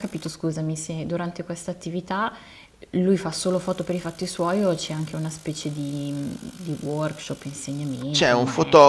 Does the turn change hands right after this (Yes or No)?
Yes